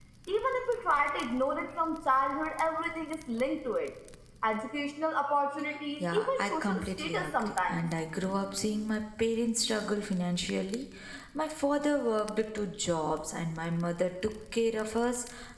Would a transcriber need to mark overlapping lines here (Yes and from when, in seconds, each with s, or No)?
Yes, from 6.0 s